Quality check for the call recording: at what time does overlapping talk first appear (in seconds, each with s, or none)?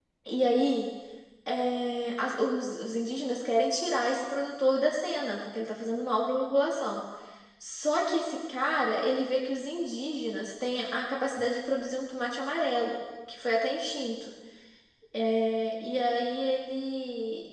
none